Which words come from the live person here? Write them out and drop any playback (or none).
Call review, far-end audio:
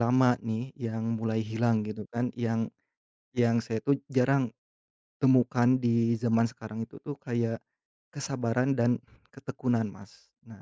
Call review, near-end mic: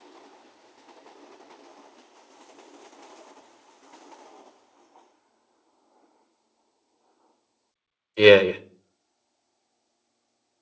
iya iya,